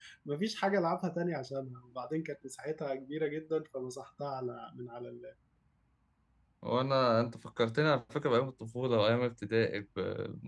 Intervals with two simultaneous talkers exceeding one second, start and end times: none

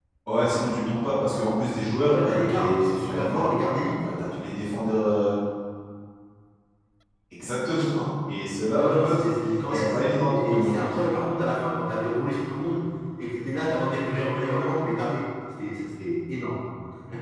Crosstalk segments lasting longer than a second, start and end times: 2.1-3.5, 9.7-11.0

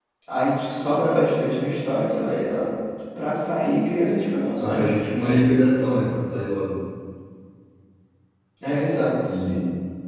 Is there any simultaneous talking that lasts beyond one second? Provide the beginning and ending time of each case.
none

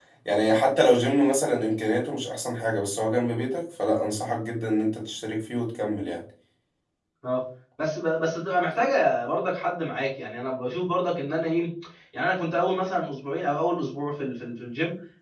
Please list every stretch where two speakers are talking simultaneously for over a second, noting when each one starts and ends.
none

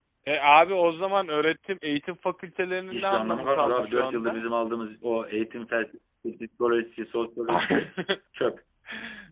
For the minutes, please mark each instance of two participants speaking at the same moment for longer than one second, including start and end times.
2.9-4.4

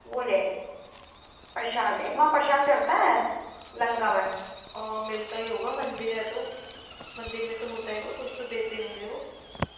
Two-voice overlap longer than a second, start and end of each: none

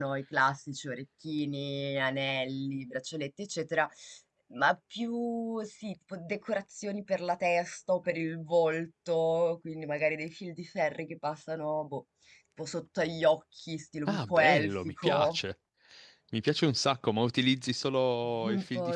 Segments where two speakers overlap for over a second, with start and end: 14.1-15.4

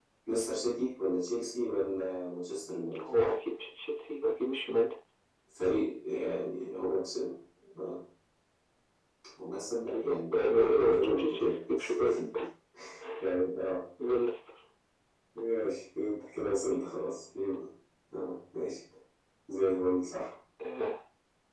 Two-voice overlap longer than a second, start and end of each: 9.9-11.6

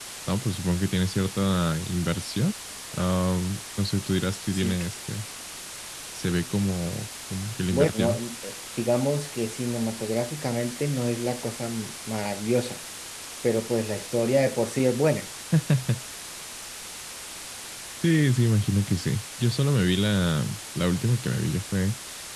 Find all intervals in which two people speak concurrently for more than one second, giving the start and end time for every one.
none

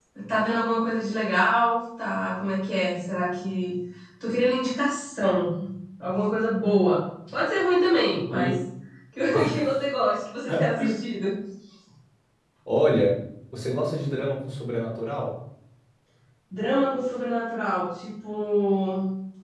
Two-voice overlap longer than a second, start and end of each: none

